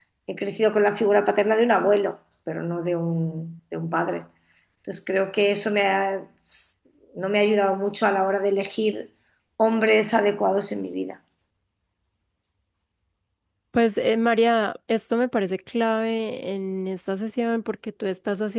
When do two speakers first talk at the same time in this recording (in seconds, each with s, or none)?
none